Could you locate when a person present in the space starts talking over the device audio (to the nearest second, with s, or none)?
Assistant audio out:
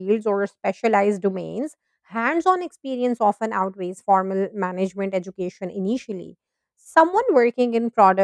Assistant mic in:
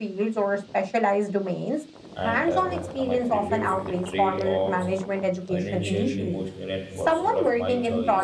2 s